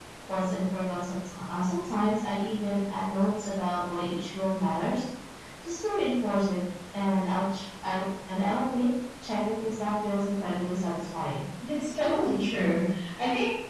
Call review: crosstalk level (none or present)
none